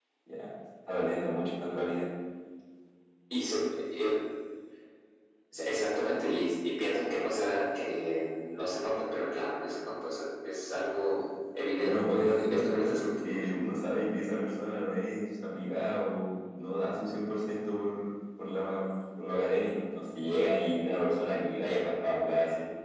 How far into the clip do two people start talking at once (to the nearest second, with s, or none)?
12 s